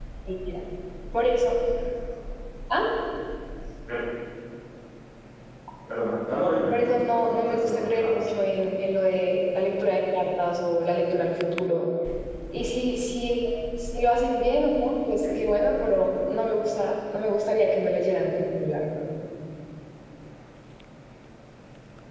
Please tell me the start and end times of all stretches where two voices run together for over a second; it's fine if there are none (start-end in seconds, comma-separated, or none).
6.7-8.2